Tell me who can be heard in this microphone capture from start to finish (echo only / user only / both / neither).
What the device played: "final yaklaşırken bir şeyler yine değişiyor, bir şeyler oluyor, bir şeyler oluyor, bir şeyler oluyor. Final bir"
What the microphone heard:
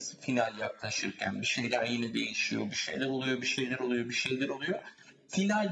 echo only